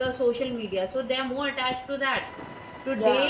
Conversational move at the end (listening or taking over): listening